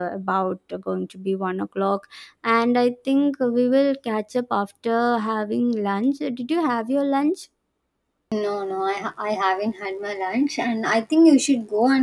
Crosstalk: none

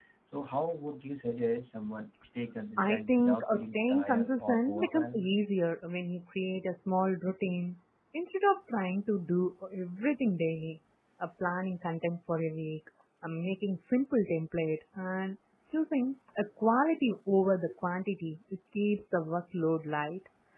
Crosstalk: present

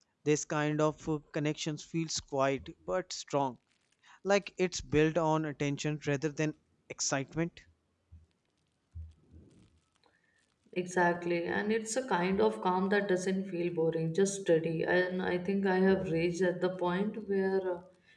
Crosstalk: none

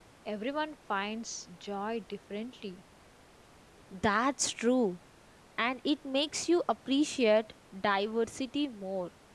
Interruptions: none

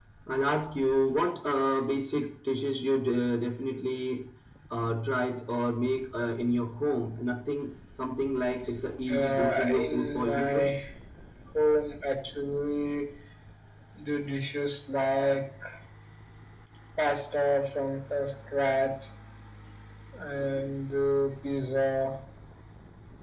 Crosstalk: present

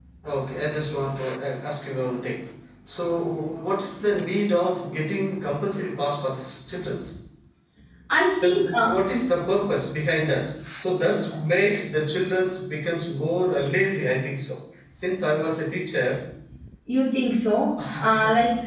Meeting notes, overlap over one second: none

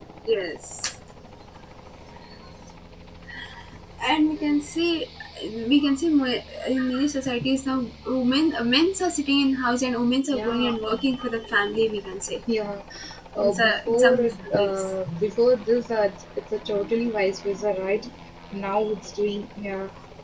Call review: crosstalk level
present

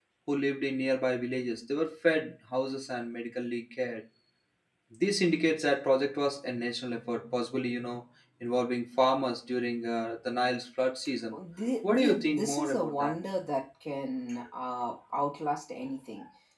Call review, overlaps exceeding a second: present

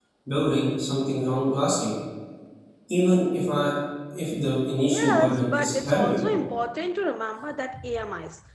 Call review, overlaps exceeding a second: present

